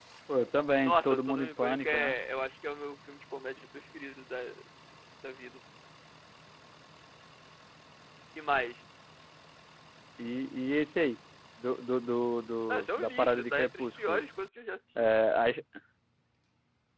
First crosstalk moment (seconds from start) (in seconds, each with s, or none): 0.8 s